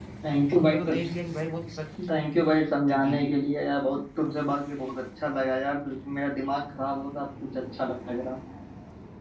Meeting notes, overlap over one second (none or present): none